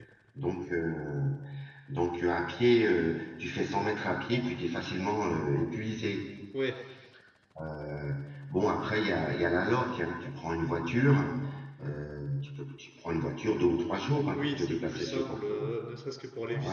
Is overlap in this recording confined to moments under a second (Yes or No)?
No